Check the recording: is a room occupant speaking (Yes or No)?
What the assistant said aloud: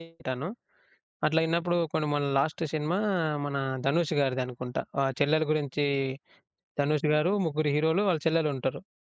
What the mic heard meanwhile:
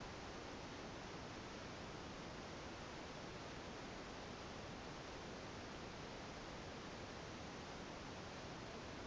No